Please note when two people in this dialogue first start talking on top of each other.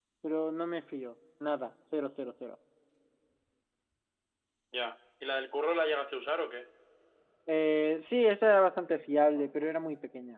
none

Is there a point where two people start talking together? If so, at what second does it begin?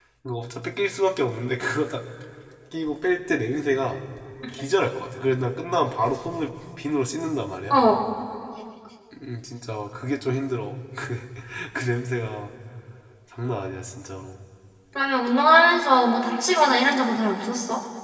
none

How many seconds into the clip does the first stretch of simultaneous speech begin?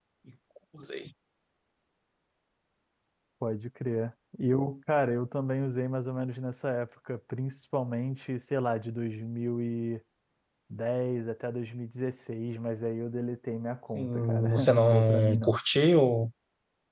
13.9 s

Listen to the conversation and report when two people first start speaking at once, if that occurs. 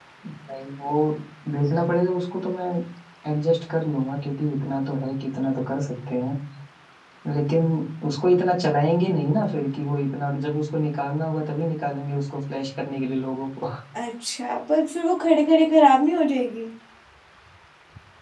none

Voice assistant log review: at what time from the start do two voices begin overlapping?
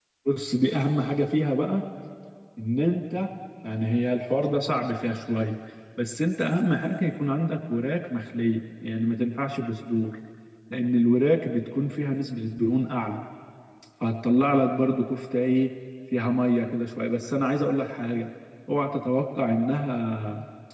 none

